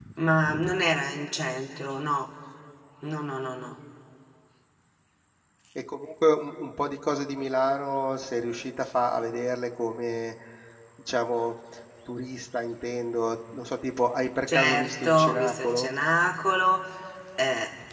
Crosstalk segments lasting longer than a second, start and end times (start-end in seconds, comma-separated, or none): 14.5-15.9